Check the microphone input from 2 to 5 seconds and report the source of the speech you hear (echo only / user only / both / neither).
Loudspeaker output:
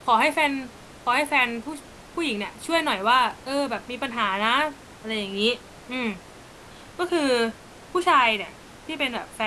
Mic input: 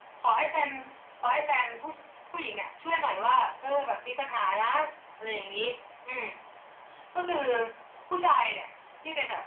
echo only